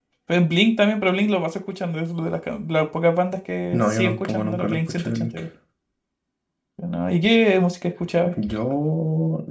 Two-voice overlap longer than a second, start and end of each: 3.7-5.3

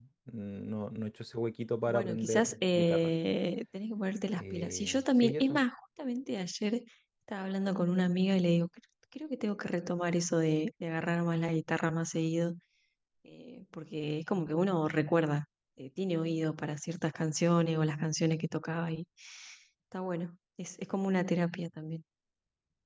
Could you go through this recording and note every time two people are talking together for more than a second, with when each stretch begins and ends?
1.9-3.1, 4.4-5.6

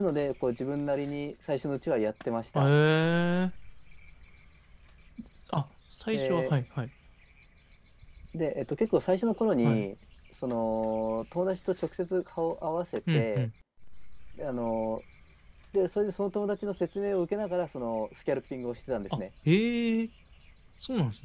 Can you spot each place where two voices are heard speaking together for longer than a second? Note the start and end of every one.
none

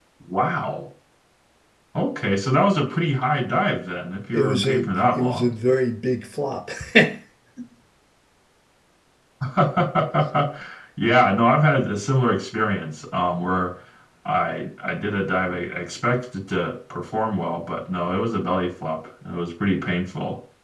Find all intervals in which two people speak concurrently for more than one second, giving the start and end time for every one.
4.3-5.5

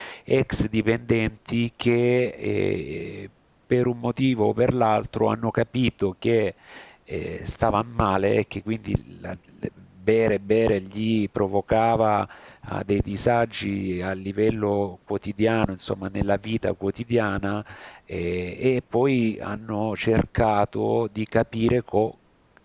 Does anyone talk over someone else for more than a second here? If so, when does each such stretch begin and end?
none

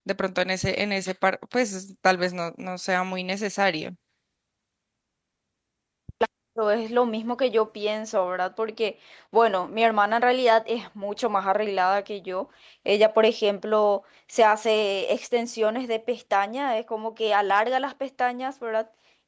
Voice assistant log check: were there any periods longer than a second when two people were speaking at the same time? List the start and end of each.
none

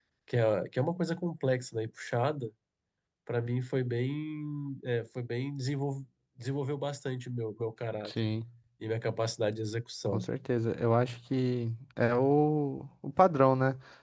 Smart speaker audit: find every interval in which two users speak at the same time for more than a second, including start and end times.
none

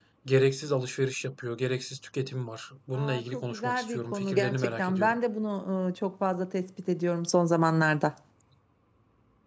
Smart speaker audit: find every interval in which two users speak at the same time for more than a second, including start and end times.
2.9-5.2

